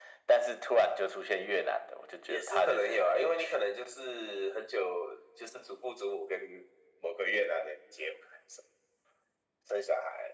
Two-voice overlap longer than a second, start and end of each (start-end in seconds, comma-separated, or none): 2.3-3.6